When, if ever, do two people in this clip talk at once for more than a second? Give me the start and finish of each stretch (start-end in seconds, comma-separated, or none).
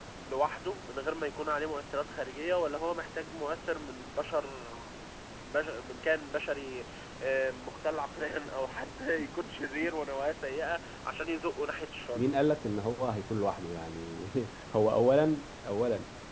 none